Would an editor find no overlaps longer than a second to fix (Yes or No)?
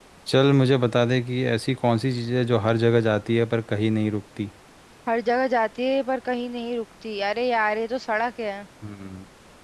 Yes